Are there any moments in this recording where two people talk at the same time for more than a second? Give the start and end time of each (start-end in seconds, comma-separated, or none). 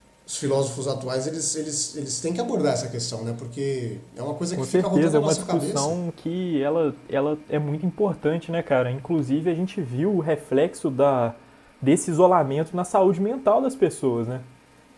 4.5-6.0